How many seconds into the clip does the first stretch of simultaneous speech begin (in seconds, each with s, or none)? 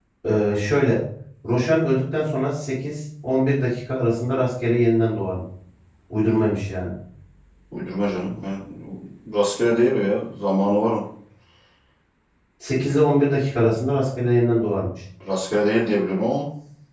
none